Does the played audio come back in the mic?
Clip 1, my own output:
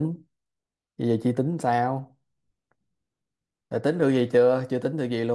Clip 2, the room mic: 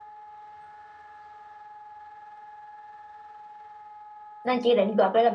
No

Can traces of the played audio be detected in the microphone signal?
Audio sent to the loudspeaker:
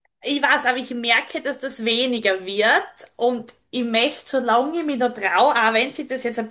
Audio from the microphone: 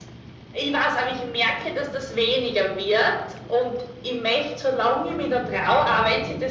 Yes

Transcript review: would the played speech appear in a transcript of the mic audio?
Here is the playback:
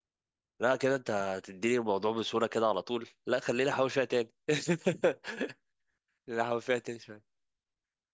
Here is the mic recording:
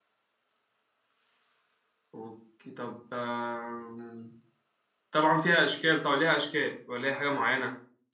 No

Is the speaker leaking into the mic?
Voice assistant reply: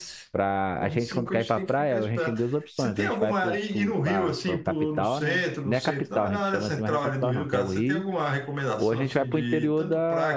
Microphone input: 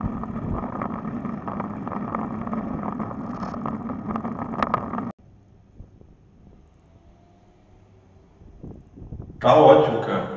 No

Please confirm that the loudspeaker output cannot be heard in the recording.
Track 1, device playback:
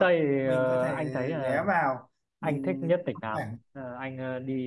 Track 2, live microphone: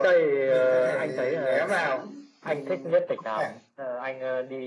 No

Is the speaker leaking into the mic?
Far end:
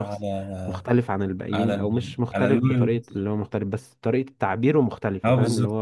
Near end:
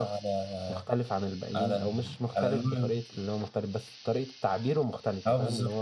Yes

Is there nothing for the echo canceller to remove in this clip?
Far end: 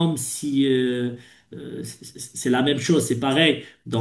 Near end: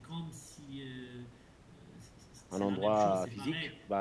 No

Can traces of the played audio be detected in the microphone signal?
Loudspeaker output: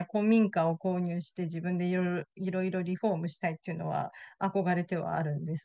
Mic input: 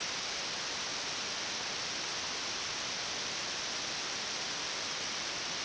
No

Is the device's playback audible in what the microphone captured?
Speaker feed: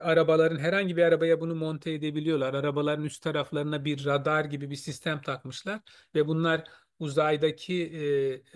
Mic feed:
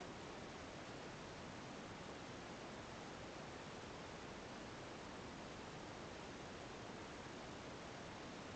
No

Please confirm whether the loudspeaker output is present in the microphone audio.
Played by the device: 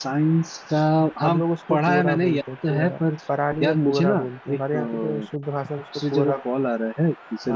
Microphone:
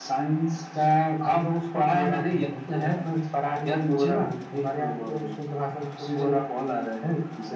Yes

